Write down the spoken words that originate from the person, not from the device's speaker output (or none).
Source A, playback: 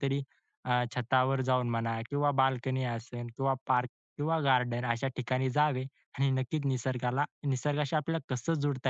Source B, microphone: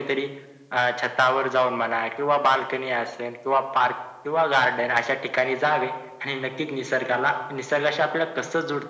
none